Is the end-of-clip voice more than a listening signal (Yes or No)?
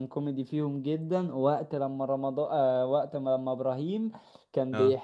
No